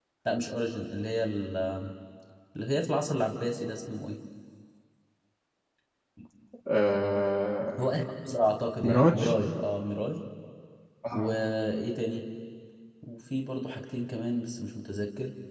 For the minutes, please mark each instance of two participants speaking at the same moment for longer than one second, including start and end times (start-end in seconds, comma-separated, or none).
none